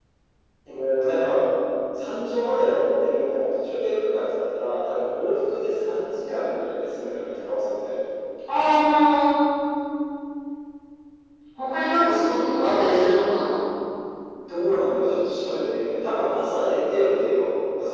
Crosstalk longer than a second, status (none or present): none